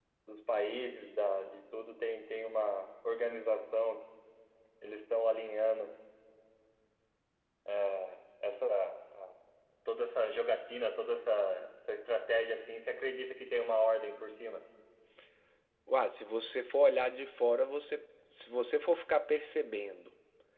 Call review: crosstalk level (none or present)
none